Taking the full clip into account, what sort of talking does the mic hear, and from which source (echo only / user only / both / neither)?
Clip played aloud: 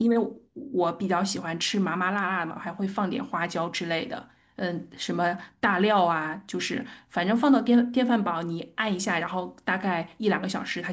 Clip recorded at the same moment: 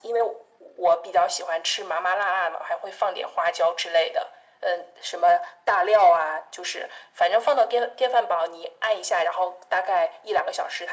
echo only